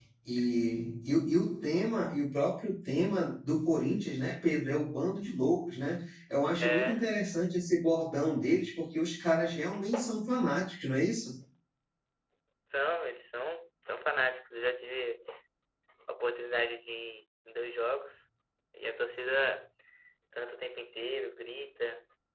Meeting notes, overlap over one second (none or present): none